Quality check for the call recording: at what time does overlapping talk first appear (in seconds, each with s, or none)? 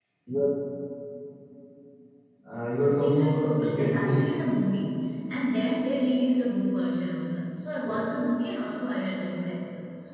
2.8 s